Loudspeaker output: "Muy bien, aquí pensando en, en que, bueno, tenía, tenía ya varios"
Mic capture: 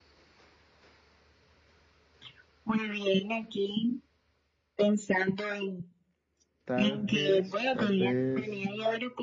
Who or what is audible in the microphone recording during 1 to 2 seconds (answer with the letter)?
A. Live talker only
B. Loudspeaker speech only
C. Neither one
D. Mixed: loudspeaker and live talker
C